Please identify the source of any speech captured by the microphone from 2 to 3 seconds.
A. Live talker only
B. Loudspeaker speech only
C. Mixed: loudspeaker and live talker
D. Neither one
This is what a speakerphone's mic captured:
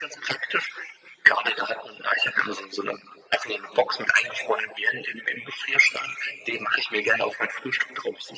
B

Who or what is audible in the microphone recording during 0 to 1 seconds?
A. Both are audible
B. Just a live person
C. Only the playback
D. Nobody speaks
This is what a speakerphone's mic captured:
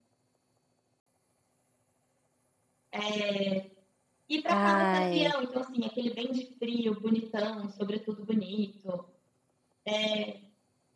D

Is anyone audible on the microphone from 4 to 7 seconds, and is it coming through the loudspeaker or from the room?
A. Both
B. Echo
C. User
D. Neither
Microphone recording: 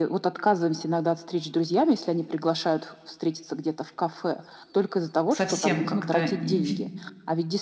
A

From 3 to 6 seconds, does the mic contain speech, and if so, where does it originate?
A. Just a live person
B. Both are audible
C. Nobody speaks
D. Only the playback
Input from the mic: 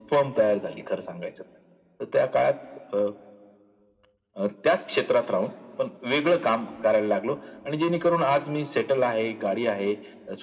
D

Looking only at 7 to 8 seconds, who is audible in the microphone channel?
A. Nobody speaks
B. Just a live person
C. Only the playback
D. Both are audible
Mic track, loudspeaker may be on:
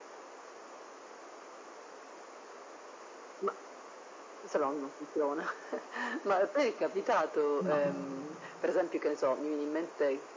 D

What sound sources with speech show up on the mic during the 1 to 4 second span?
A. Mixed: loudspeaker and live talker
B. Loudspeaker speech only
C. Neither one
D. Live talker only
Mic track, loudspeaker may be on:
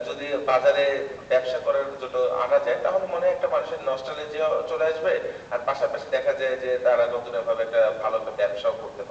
B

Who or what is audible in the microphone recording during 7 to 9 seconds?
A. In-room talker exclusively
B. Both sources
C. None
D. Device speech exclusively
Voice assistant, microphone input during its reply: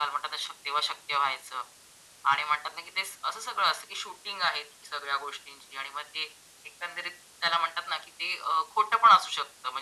D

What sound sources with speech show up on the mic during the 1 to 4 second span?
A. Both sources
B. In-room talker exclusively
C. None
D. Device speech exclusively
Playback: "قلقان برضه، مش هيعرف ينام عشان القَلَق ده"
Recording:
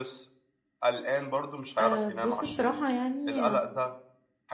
A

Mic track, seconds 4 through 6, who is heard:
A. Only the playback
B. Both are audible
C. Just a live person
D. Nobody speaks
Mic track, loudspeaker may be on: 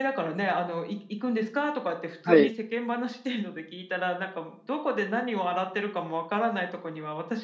A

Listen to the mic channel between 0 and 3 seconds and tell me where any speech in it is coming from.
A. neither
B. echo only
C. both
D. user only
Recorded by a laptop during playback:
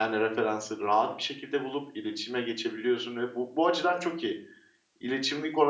D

